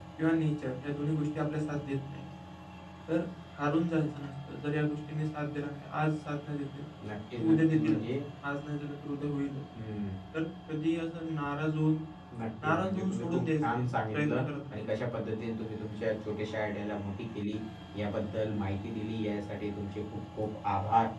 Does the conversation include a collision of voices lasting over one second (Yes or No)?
Yes